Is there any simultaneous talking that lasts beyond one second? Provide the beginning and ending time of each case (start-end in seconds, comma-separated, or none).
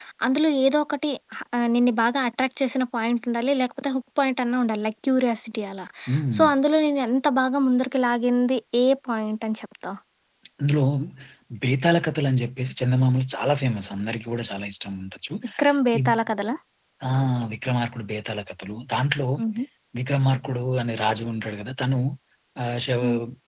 none